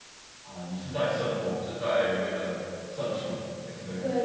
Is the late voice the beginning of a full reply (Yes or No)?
Yes